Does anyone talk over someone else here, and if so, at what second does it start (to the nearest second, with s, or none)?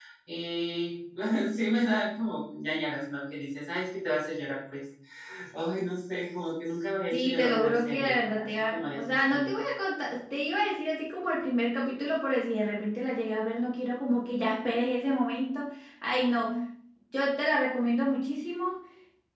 7 s